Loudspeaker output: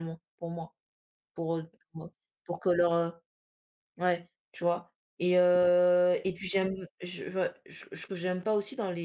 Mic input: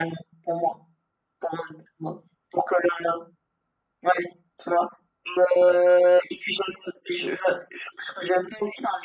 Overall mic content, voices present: echo only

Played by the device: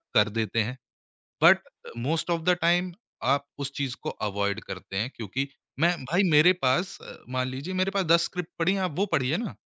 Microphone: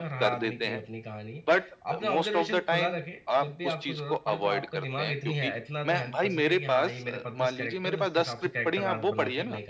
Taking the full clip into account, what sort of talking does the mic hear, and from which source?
both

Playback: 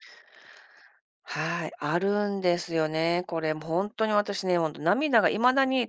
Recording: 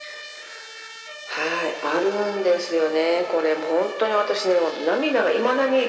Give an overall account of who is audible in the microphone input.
echo only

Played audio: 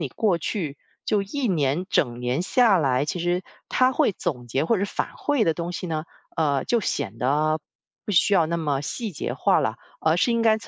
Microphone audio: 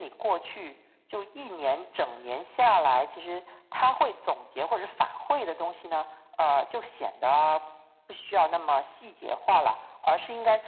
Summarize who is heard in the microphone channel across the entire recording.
echo only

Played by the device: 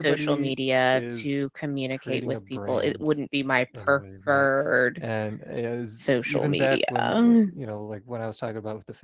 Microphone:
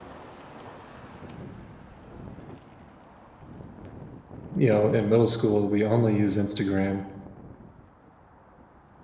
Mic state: user only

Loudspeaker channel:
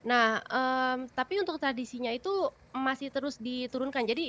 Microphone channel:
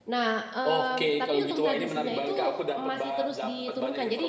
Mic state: both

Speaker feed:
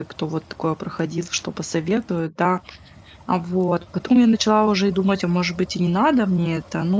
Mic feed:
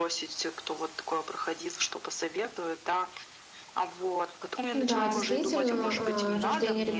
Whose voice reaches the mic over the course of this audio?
both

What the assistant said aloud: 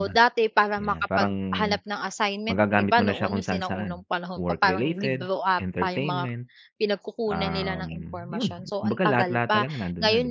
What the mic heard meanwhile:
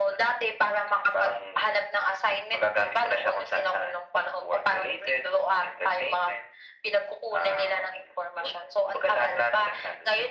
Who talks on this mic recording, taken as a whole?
echo only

